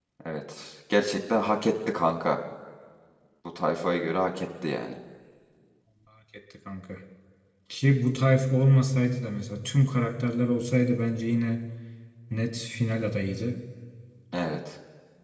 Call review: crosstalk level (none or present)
none